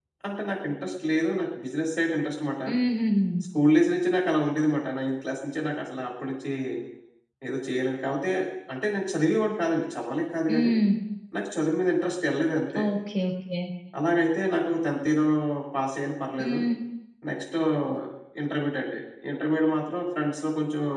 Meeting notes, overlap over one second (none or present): none